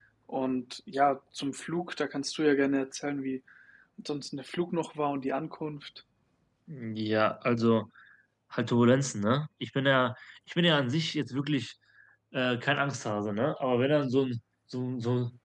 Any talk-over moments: No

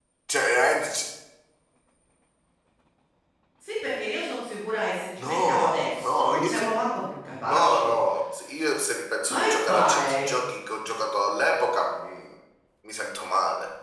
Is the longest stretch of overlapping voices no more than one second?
No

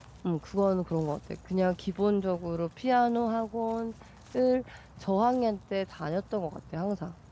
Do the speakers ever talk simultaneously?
No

